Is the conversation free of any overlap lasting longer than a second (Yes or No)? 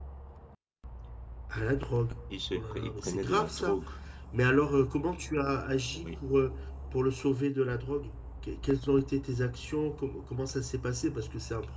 No